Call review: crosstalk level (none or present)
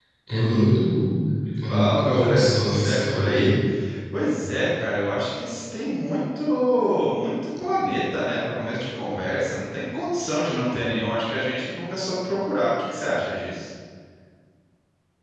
present